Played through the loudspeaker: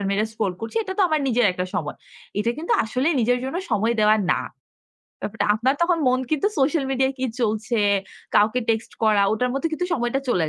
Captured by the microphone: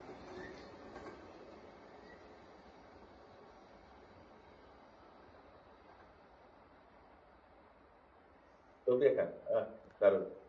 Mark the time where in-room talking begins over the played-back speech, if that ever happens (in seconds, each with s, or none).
8.9 s